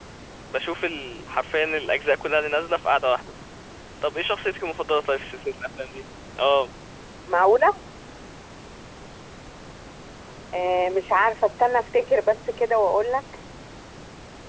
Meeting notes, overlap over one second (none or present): none